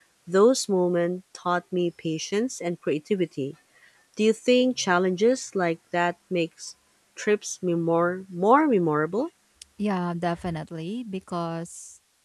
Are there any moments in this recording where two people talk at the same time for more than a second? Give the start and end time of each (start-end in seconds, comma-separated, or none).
none